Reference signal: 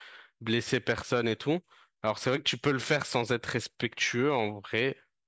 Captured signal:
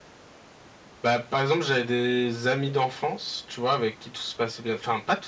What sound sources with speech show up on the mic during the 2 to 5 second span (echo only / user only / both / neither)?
user only